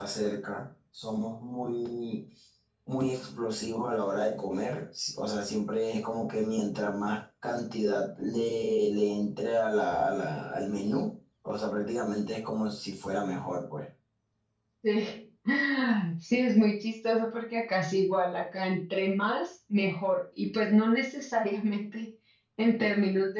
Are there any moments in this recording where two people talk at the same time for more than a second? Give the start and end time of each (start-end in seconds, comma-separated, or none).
none